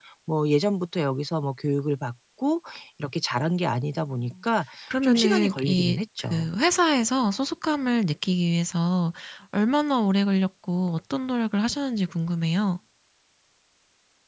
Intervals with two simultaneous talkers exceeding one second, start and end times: 5.0-6.5

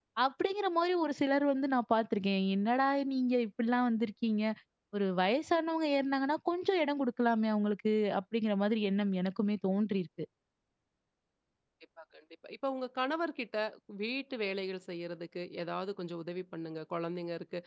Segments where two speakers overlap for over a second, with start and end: none

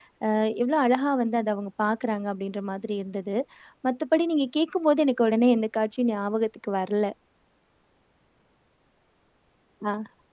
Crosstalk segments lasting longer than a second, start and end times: none

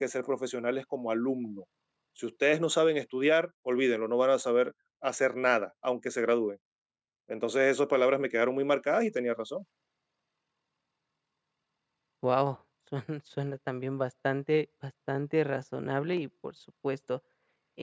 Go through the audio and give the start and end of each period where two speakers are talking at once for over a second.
none

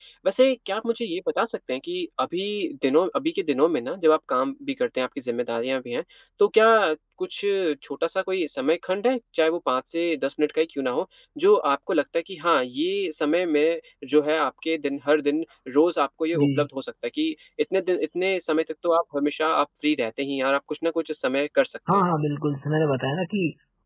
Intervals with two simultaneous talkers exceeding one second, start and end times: none

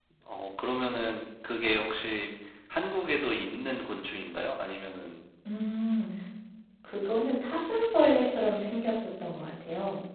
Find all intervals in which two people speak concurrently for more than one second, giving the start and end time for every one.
none

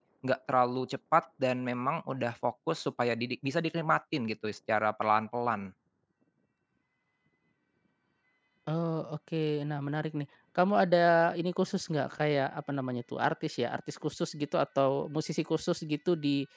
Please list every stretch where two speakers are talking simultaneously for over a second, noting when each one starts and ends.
none

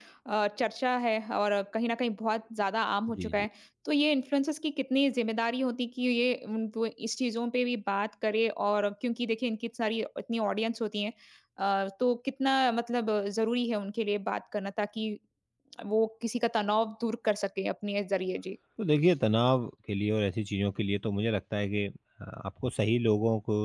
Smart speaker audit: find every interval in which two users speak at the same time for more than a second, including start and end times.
none

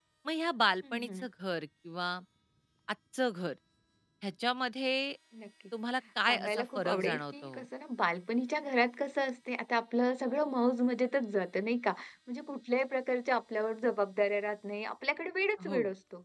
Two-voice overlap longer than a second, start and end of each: 6.3-7.5

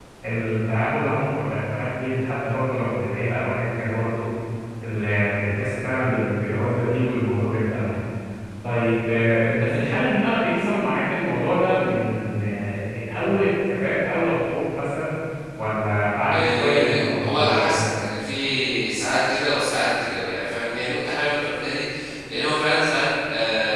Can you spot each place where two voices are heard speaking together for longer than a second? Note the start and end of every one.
16.3-17.8

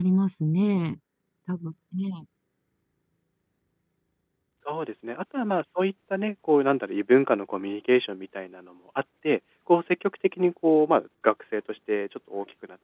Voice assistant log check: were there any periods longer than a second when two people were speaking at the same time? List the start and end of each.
none

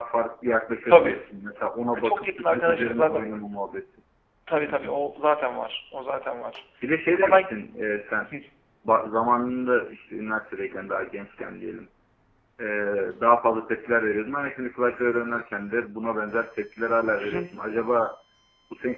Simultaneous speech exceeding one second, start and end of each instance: 1.9-3.2

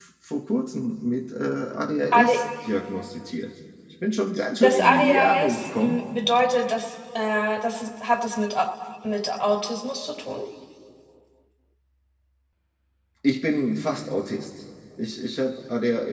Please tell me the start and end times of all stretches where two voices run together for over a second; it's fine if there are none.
4.6-6.0

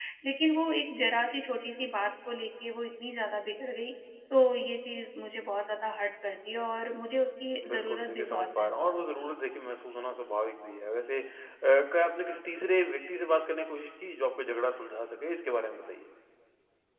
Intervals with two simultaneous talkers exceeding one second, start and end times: 7.7-9.3

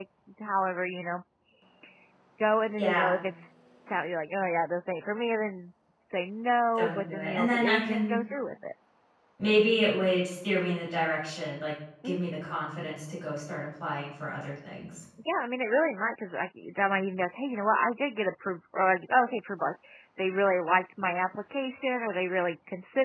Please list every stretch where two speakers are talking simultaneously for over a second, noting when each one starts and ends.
6.8-8.2

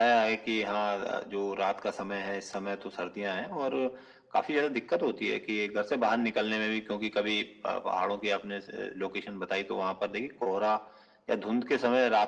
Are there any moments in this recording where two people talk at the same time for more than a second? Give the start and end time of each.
none

